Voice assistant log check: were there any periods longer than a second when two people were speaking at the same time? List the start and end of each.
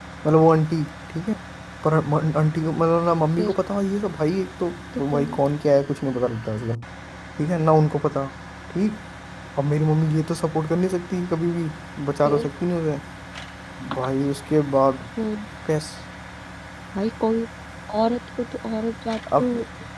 none

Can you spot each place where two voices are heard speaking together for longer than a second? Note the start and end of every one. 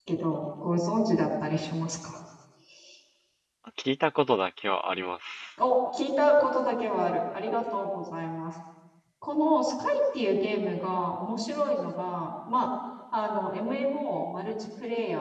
none

